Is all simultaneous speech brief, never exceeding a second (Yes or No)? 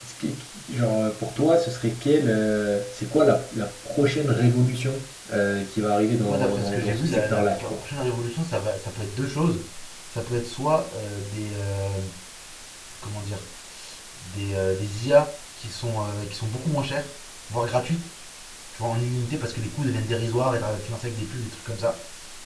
No